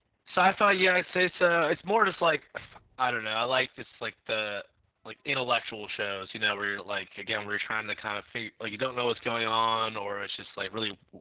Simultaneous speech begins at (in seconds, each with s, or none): none